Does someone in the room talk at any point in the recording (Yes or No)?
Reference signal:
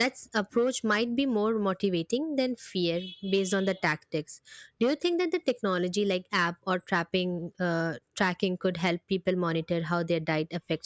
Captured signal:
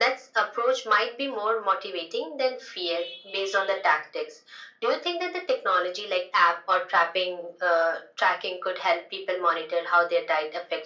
No